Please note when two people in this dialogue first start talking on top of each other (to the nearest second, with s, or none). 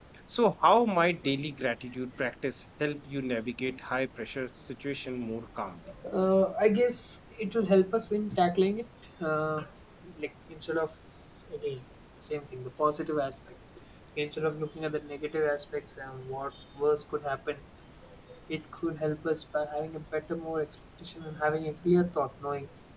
none